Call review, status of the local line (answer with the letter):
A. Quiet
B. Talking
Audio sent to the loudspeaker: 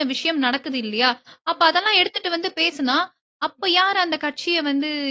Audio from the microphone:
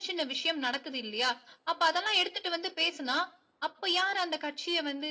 A